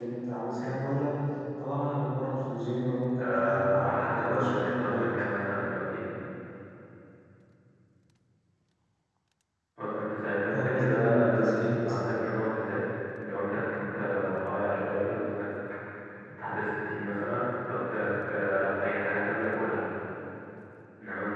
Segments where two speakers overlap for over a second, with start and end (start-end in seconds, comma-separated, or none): 3.2-5.0, 10.5-12.0